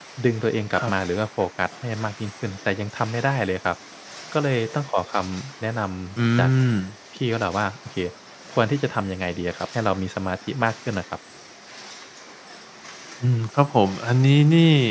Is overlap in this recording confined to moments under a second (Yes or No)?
Yes